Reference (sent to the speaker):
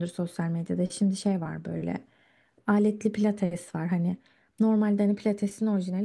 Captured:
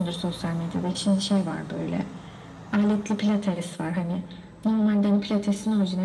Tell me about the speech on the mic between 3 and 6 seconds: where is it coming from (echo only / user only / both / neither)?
echo only